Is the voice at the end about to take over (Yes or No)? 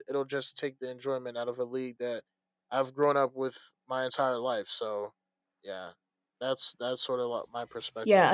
Yes